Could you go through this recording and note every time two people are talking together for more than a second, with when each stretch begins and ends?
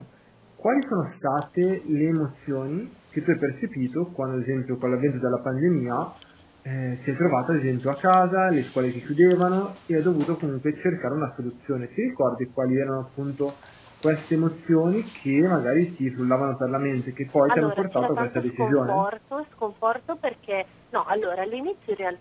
17.5-19.1

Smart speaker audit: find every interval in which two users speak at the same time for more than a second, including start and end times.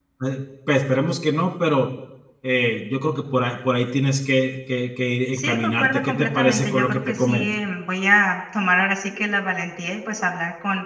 5.3-7.5

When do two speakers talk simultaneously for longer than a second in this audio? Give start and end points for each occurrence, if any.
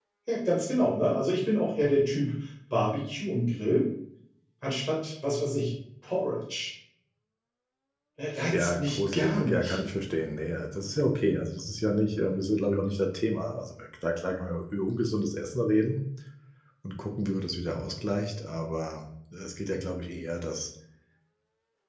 8.5-9.8

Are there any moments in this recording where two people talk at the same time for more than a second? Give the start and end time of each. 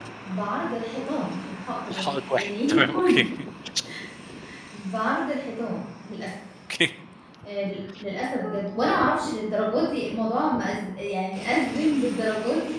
1.9-3.2

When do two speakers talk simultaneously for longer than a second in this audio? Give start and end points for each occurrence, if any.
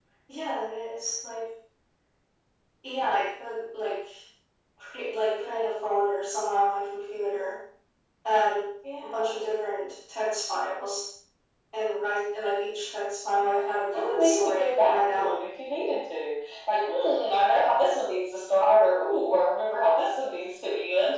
13.3-15.3

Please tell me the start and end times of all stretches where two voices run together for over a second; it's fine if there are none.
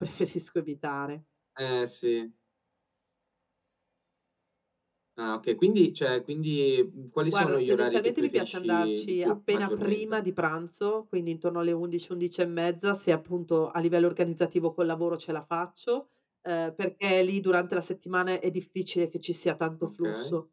7.3-10.0

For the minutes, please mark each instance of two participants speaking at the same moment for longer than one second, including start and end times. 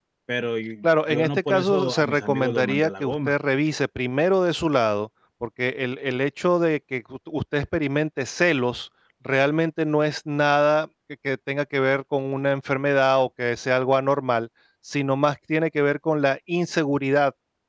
0.8-3.3

